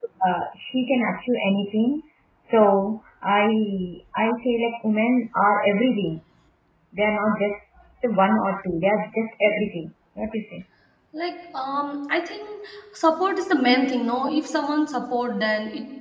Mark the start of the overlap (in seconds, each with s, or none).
none